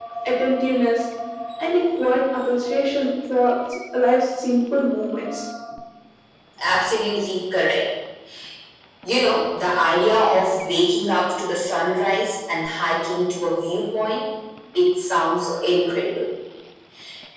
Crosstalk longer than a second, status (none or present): none